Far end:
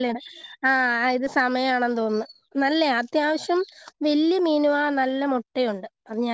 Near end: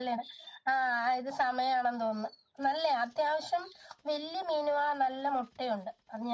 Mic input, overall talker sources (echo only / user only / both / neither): echo only